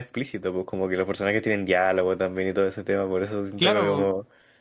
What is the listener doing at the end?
listening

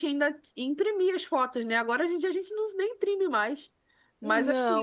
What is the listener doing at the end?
listening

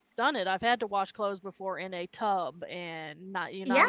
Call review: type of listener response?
listening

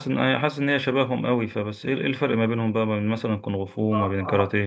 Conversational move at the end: taking over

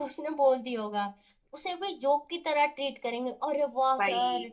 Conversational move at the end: listening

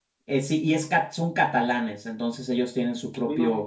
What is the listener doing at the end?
listening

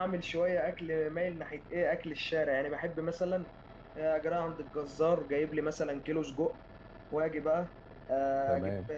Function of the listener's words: listening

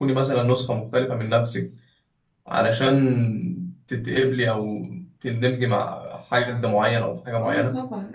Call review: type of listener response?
taking over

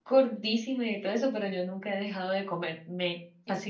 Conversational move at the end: taking over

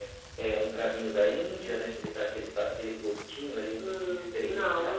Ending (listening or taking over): taking over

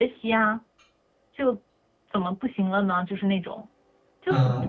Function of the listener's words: taking over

